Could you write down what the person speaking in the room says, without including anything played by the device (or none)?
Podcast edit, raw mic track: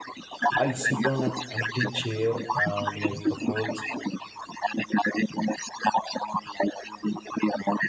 I'll sit on an empty chair uh, near couples,